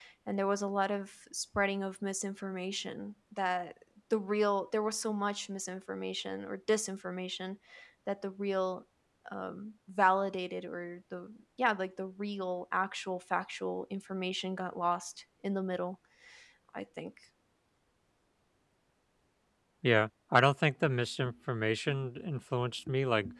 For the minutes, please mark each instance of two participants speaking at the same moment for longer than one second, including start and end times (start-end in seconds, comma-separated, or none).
none